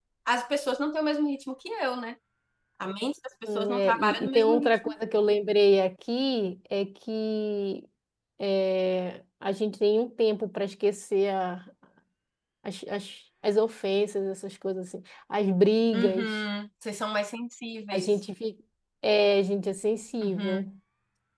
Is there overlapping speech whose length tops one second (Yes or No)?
Yes